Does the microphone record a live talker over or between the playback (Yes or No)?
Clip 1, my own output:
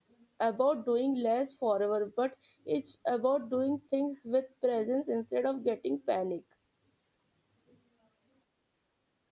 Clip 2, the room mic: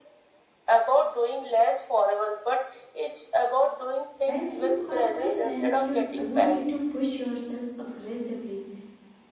Yes